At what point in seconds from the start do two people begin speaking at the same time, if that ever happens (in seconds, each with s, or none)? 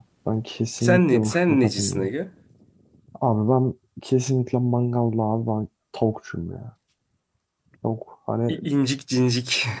0.8 s